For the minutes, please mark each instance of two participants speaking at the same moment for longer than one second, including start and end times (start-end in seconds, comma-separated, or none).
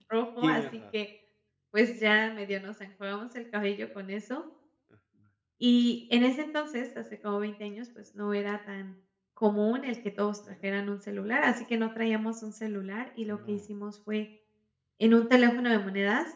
none